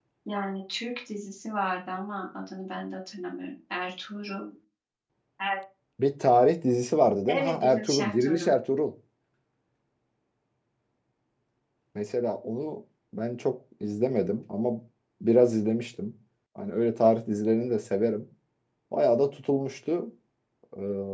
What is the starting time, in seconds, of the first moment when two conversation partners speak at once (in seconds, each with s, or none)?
7.3 s